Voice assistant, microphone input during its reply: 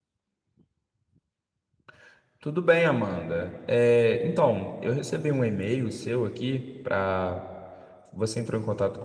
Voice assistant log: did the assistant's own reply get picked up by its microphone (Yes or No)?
No